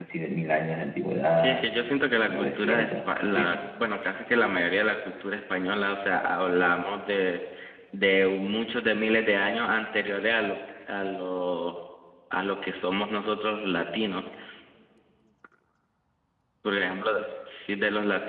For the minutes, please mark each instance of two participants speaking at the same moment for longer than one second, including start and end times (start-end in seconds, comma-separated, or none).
2.3-3.5